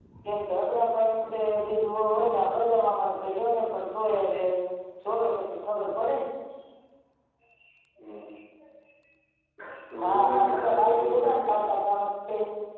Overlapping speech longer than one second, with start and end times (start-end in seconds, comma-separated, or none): 10.1-11.8